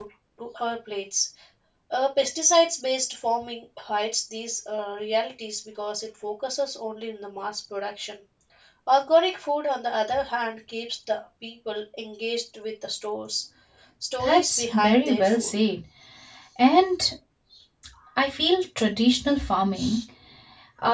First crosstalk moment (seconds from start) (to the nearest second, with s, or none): 14 s